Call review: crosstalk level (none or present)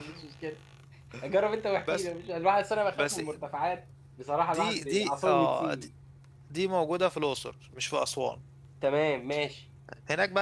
present